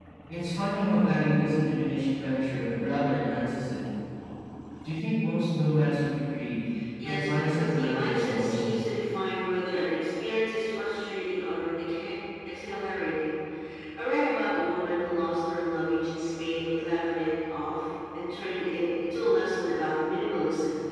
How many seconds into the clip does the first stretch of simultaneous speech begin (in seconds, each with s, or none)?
7.0 s